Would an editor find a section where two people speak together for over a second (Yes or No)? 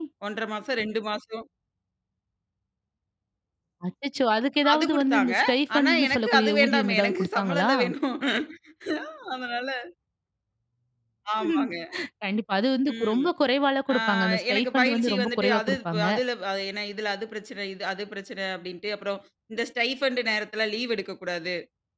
Yes